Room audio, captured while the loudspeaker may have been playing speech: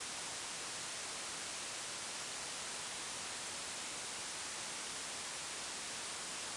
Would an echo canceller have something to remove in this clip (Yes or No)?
No